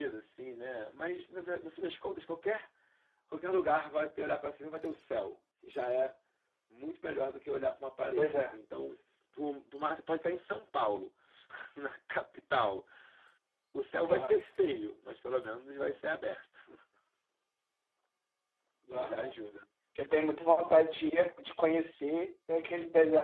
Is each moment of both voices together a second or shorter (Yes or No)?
Yes